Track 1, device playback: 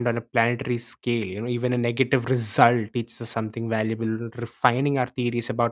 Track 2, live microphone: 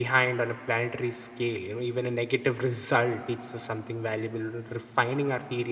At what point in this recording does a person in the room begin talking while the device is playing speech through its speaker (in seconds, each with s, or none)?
none